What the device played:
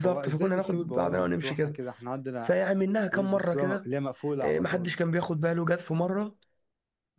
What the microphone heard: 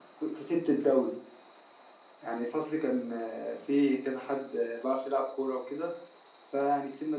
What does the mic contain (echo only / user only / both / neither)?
user only